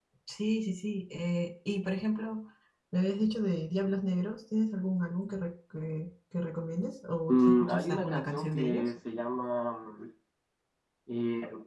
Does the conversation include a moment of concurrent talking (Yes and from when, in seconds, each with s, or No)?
Yes, from 7.3 s